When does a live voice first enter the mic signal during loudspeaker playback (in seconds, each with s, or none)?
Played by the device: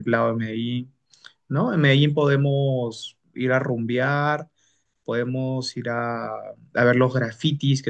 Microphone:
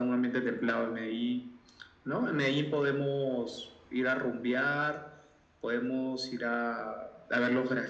none